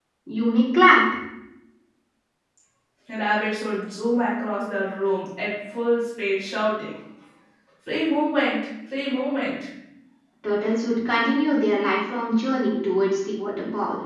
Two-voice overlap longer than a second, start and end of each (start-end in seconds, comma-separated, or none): none